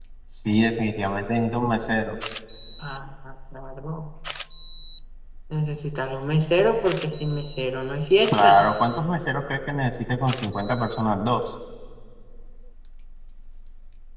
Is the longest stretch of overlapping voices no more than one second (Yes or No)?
Yes